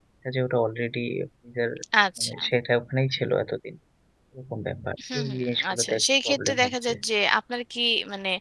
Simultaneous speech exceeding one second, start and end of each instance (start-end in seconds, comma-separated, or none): 5.1-6.9